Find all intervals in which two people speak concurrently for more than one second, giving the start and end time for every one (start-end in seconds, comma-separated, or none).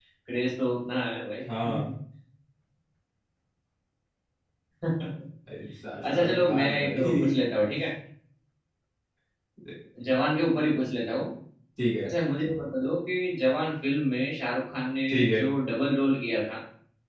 6.0-7.4